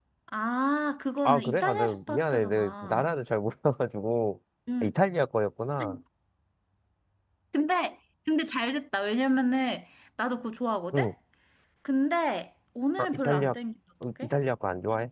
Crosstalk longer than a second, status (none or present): present